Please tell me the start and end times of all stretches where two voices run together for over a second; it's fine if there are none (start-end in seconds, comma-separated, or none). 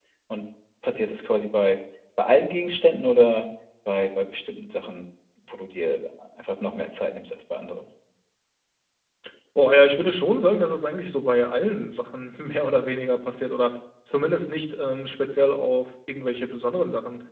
none